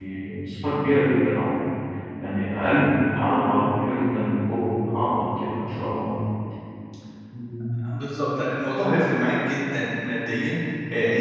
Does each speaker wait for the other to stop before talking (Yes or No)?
Yes